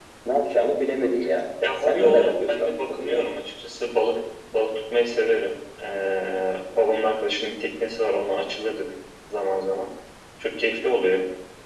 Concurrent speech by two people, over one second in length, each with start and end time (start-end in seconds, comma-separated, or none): 1.9-3.2